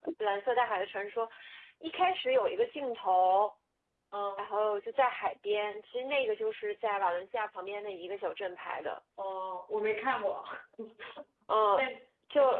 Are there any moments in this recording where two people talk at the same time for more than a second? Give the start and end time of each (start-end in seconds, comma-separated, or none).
none